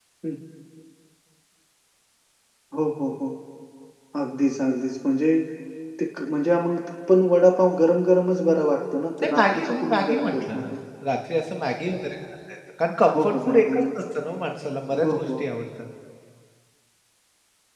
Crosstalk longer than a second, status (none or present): present